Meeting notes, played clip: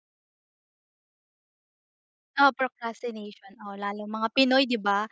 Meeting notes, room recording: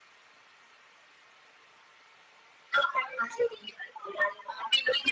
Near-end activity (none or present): none